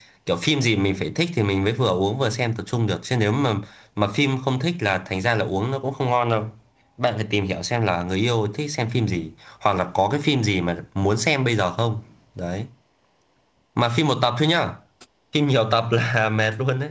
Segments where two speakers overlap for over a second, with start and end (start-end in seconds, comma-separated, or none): none